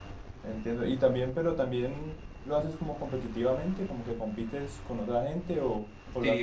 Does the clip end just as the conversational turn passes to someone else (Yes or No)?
Yes